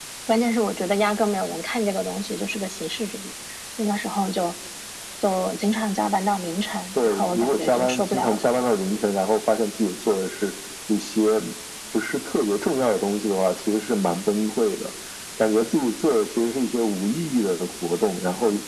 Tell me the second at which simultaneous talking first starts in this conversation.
7.0 s

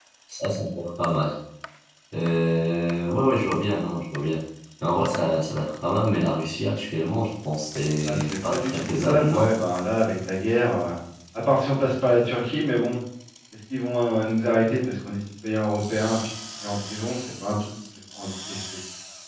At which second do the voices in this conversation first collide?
8.1 s

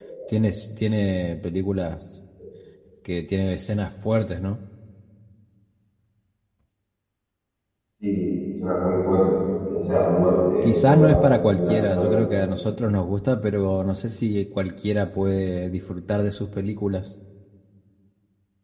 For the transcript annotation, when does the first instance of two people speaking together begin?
10.6 s

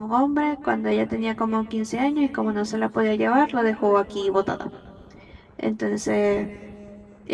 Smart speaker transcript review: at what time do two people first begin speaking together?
none

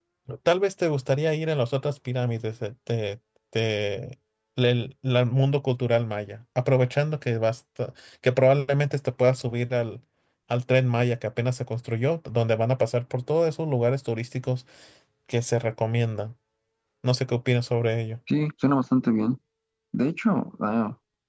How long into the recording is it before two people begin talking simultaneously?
none

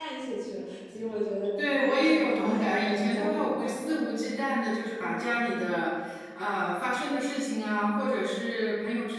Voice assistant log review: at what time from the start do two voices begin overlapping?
1.6 s

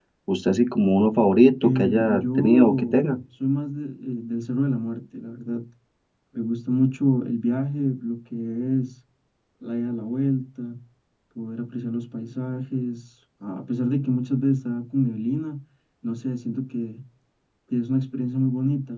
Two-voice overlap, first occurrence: 1.6 s

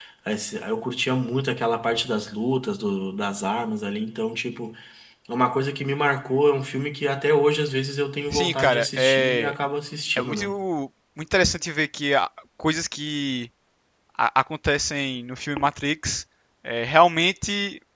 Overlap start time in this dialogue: 8.3 s

